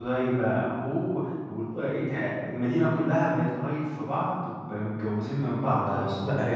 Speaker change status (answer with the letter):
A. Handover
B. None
A